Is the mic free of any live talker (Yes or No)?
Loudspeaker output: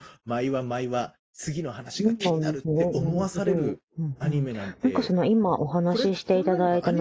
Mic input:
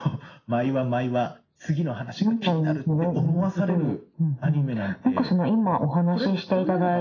Yes